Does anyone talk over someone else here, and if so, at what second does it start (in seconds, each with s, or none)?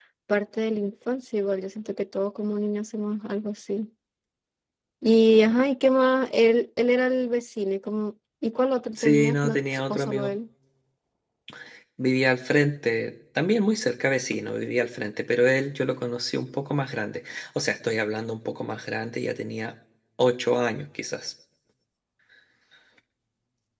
9.0 s